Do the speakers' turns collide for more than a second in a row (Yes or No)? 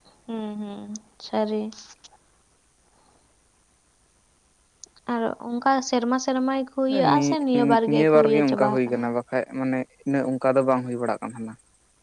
Yes